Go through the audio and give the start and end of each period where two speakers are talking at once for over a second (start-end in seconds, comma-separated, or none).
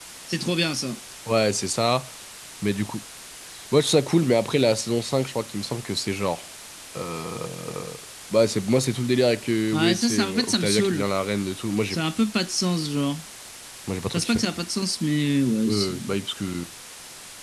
9.7-11.1